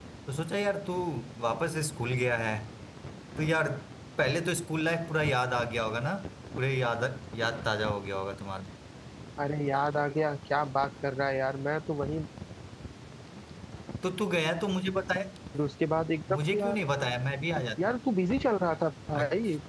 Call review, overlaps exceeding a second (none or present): none